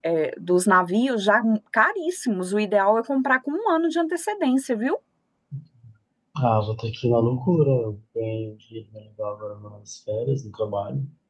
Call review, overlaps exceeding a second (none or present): none